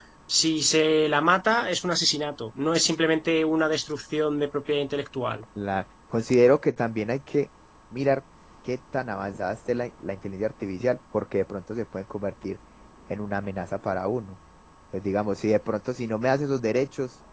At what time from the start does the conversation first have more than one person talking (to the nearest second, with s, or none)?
none